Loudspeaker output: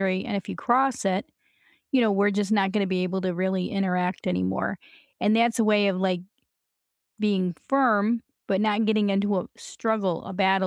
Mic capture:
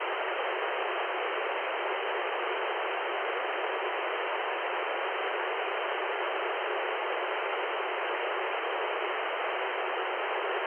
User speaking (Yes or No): No